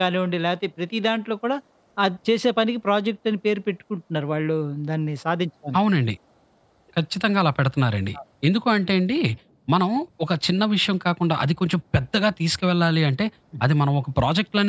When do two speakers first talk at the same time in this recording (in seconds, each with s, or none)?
none